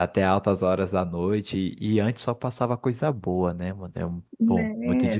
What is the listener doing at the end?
taking over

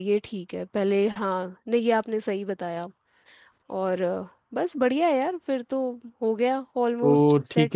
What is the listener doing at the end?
taking over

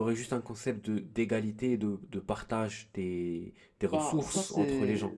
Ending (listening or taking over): taking over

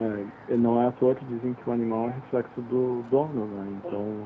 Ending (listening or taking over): listening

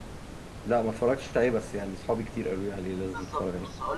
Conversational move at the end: taking over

